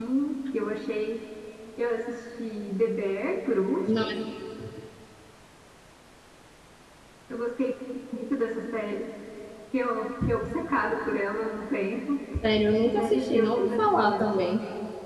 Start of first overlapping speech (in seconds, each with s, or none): 12.8 s